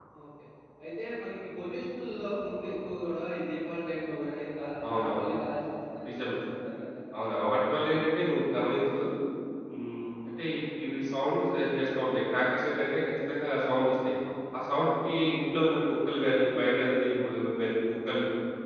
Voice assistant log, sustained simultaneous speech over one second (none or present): none